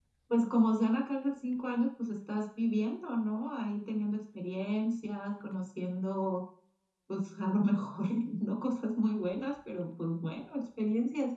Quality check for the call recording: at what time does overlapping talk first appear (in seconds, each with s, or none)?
none